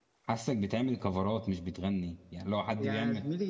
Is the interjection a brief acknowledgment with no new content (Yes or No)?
No